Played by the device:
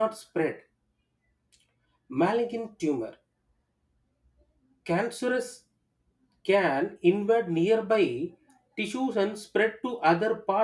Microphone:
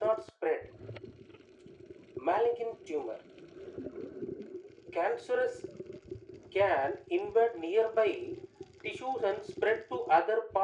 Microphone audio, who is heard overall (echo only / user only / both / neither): echo only